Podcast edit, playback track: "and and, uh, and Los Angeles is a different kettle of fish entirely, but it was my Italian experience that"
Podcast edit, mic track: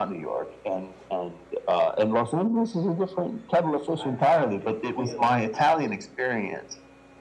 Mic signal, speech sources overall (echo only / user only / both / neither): both